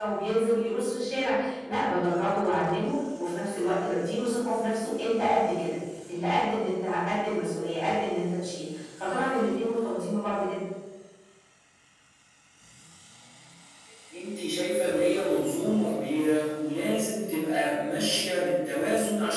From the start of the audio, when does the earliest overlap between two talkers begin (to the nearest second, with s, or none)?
none